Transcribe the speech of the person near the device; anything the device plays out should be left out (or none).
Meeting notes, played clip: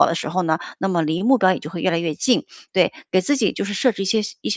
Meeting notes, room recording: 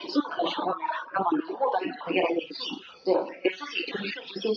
none